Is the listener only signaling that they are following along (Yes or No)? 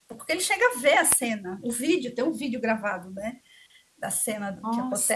Yes